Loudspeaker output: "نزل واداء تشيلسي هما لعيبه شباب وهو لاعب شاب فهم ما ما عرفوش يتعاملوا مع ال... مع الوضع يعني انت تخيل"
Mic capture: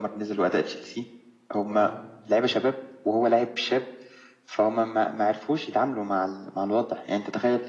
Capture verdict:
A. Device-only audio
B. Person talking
B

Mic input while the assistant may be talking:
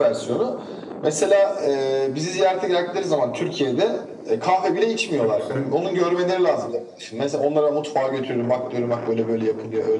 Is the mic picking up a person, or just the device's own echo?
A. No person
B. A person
B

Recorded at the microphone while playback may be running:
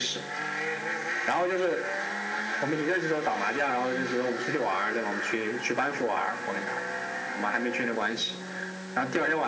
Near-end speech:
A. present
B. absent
A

